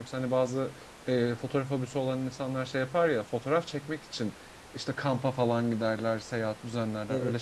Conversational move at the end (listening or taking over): taking over